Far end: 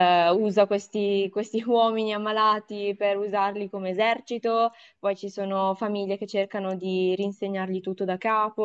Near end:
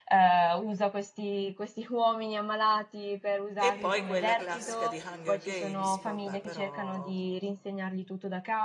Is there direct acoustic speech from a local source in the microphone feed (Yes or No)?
Yes